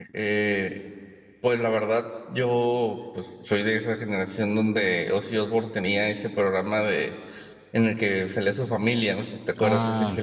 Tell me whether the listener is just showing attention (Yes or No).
No